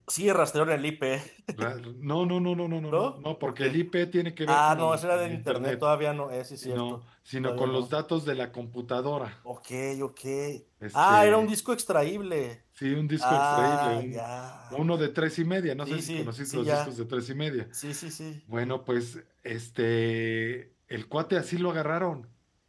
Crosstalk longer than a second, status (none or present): present